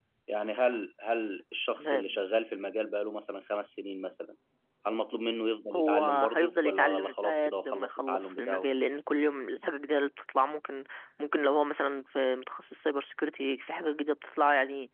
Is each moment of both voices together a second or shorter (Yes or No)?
No